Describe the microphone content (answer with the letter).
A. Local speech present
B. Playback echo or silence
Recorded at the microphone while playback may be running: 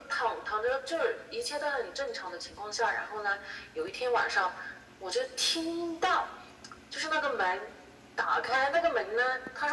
B